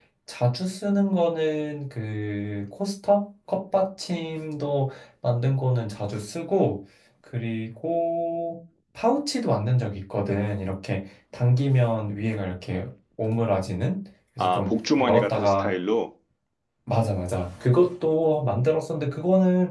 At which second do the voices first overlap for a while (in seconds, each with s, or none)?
14.4 s